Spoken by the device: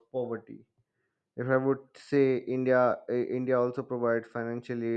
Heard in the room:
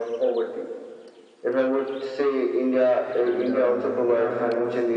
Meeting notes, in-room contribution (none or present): present